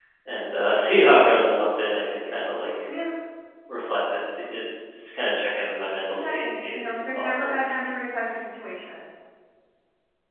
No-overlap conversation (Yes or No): No